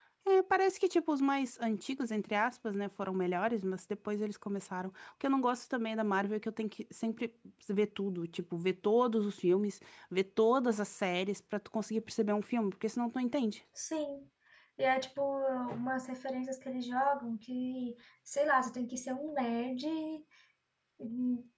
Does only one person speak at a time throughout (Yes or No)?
Yes